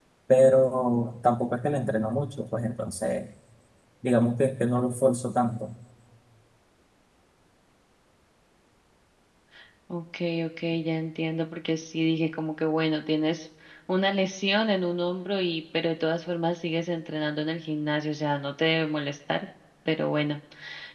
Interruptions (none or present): none